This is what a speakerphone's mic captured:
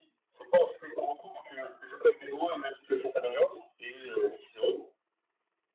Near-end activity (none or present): none